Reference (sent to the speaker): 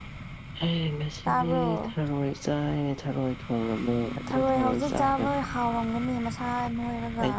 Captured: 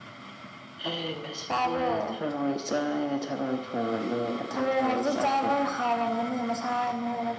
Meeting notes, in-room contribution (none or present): none